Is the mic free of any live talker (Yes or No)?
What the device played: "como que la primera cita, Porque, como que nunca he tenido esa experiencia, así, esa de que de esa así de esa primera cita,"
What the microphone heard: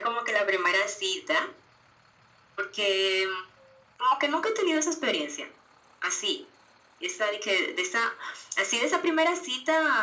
Yes